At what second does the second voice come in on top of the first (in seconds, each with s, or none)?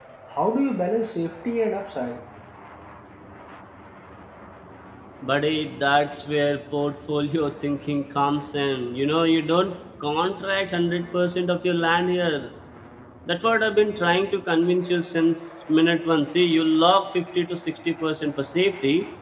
none